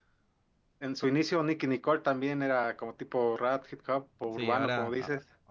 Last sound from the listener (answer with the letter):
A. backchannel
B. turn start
B